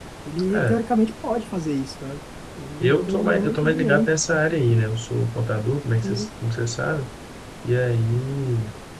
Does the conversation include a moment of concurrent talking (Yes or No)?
Yes